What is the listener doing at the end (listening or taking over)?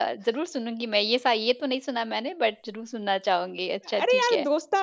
taking over